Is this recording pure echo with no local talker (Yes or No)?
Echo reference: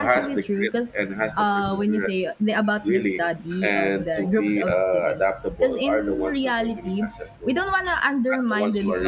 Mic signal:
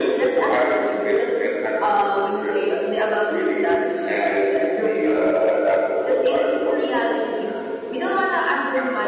Yes